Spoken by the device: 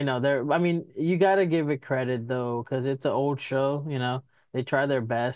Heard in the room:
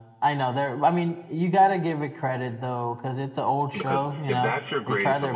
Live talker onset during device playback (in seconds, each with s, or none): 3.8 s